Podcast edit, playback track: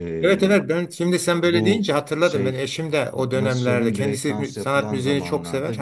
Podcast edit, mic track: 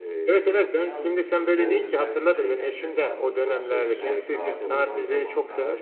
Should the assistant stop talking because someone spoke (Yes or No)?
Yes